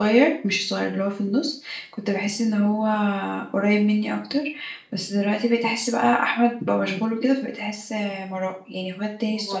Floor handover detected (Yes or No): No